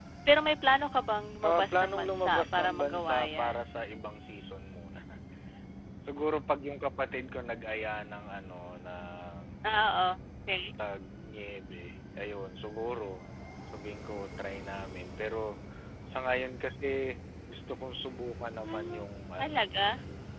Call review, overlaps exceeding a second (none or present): present